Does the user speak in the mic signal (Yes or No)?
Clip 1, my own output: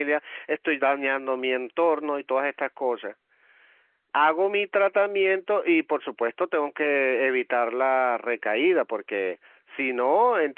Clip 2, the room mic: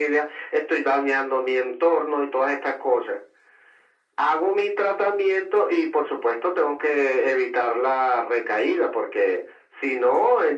No